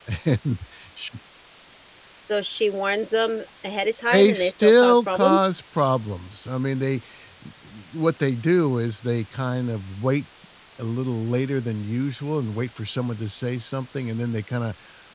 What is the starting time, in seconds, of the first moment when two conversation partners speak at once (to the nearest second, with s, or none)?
4 s